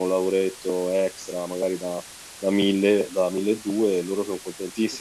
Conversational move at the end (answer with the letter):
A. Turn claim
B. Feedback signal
B